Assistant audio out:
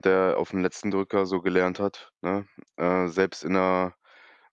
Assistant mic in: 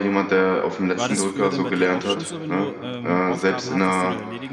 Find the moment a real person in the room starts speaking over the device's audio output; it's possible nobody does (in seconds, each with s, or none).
0.9 s